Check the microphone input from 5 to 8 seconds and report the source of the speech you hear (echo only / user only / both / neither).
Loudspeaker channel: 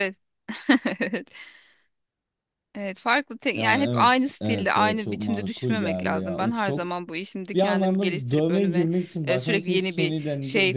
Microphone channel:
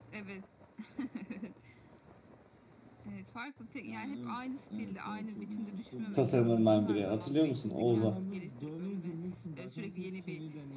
both